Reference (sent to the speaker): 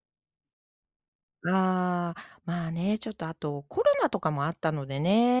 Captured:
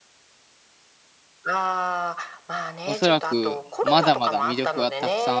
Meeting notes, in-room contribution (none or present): present